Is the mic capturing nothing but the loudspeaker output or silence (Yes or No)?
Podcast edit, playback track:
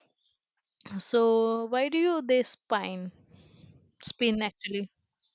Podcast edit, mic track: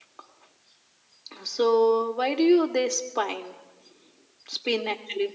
Yes